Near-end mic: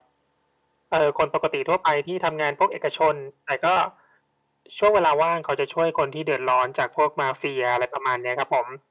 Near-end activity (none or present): none